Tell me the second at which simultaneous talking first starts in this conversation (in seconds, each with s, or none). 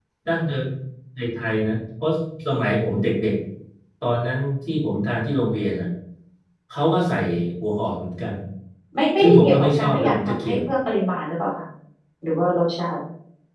9.2 s